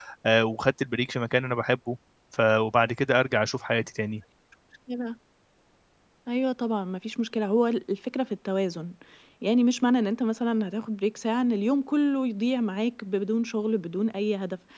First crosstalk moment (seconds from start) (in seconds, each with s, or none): none